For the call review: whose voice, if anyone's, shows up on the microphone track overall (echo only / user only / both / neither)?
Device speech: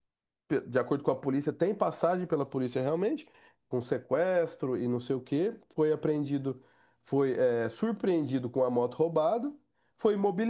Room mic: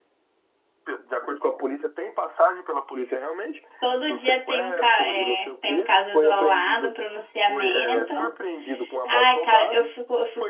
both